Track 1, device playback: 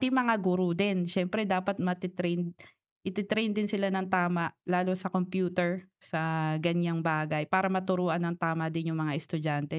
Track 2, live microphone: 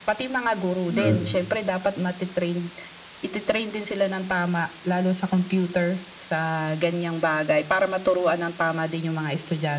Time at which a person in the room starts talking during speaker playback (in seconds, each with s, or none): 0.9 s